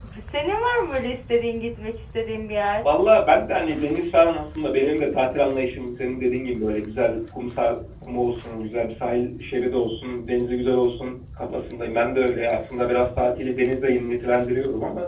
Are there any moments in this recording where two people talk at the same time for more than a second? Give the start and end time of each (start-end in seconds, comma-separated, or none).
none